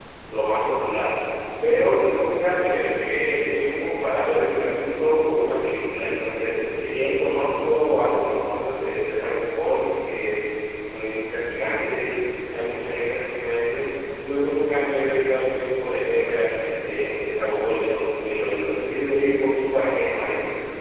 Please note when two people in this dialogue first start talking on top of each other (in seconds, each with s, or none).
none